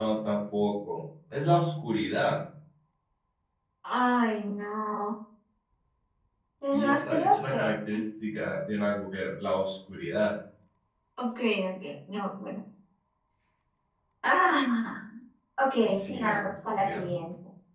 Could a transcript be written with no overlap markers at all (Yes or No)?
No